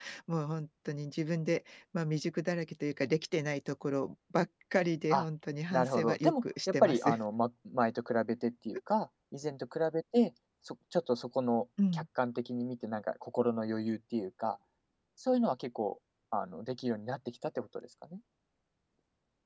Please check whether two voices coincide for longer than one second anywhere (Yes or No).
Yes